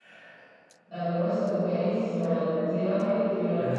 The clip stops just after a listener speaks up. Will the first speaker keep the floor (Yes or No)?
Yes